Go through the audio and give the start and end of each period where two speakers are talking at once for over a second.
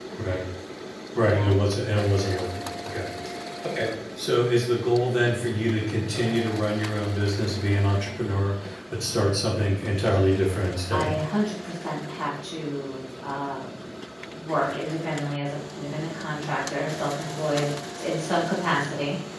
none

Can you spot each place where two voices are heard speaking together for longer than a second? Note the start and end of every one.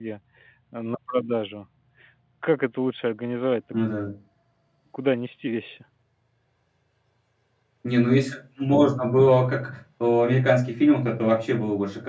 none

